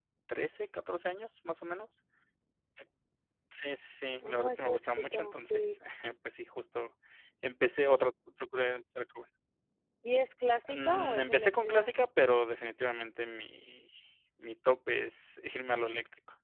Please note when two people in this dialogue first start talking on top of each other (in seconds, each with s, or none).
4.2 s